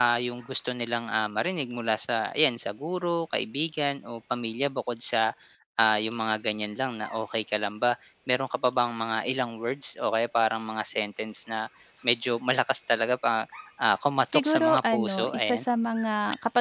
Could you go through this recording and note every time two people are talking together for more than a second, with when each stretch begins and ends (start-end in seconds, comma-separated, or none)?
14.3-15.6